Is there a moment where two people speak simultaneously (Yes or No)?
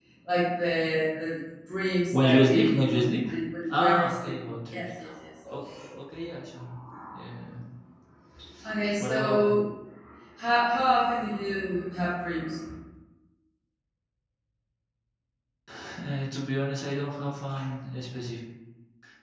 Yes